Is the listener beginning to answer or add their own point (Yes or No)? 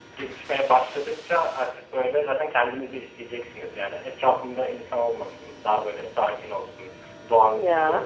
No